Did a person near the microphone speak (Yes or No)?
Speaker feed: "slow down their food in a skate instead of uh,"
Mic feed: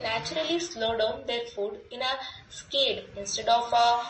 No